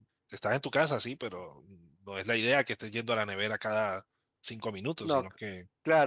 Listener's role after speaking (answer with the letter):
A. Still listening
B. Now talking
B